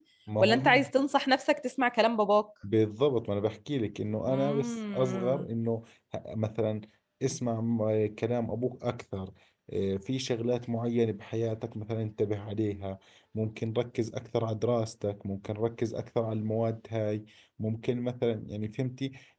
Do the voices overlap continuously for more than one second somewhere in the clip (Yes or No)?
Yes